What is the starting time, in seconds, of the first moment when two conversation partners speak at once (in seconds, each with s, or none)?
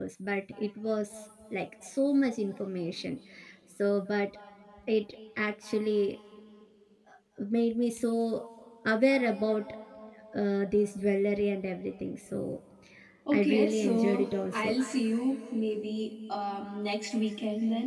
13.3 s